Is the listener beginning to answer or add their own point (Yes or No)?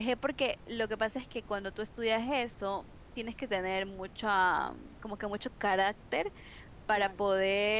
No